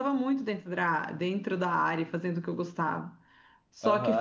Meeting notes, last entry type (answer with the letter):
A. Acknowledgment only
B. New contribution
B